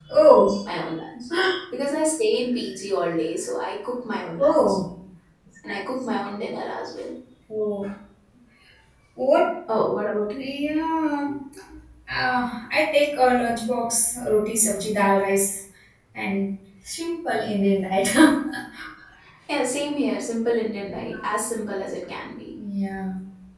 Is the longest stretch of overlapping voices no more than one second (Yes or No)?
Yes